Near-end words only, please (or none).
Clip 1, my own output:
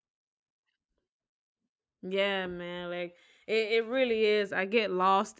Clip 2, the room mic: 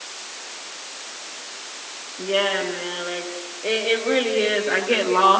none